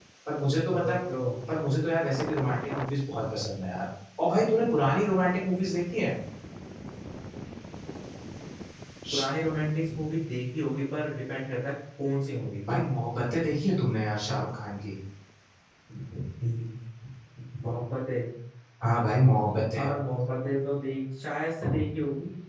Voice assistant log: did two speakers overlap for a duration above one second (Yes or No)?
No